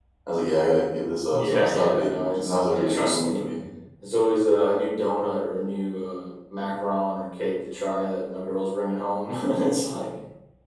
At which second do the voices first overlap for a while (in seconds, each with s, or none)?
1.3 s